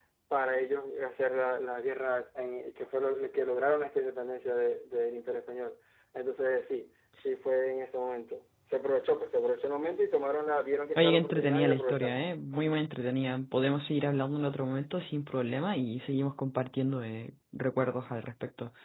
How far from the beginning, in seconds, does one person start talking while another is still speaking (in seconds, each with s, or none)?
11.0 s